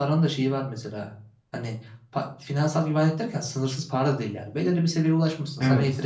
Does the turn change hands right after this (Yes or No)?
No